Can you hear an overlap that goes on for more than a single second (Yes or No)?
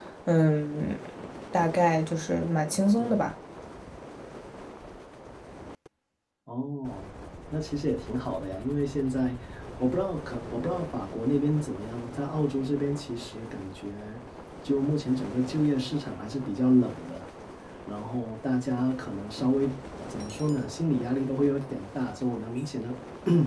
No